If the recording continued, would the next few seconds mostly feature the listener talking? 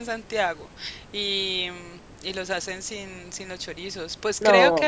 No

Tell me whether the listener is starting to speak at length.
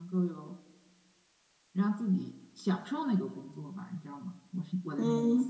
Yes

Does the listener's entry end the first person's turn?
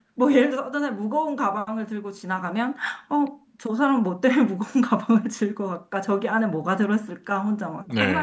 Yes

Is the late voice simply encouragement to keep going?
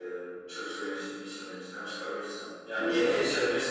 Yes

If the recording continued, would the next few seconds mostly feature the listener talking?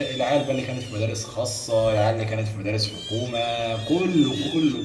No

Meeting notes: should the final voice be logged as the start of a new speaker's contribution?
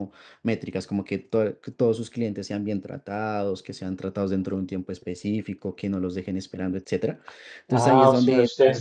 Yes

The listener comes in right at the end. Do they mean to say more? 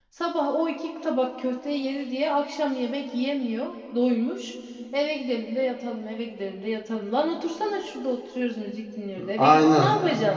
Yes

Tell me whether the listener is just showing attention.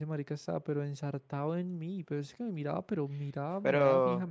No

